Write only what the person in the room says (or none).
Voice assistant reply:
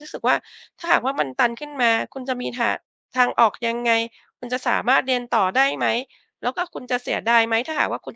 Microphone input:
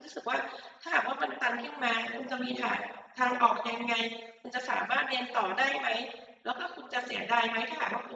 none